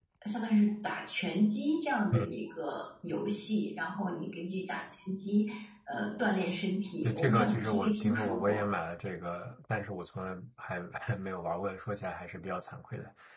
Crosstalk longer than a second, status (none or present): present